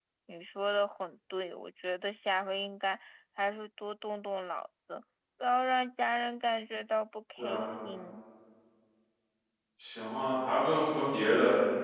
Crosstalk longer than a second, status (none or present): none